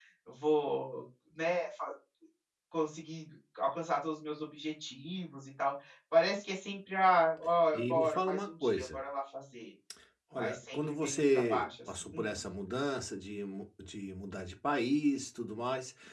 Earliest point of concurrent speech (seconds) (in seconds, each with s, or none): 7.7 s